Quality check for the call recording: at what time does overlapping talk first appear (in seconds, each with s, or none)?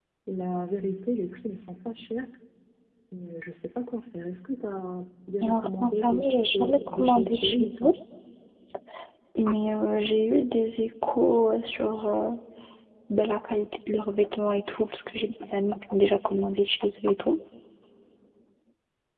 5.4 s